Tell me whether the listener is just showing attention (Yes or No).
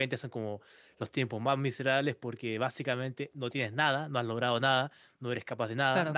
Yes